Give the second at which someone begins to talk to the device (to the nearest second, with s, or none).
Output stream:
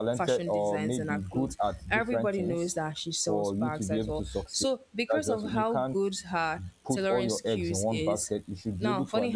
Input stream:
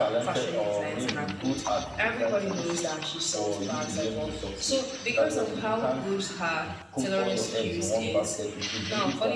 none